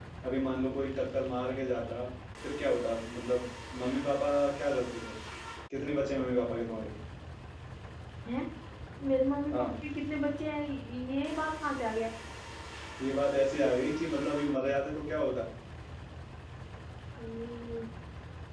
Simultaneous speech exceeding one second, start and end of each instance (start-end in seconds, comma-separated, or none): none